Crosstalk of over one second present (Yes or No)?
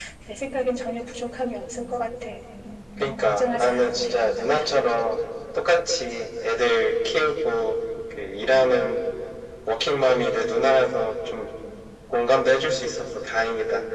Yes